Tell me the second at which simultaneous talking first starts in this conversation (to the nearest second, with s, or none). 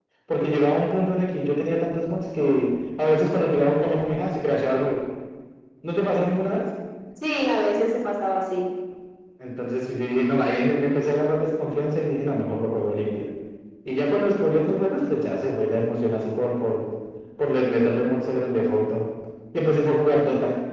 none